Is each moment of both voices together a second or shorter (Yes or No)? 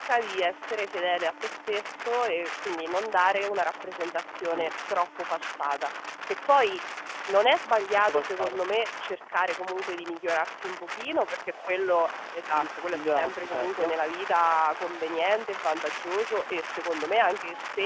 No